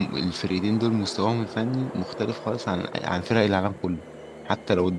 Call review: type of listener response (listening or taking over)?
listening